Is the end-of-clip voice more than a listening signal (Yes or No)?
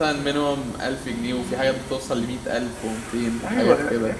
Yes